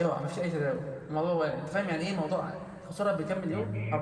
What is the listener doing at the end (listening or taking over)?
taking over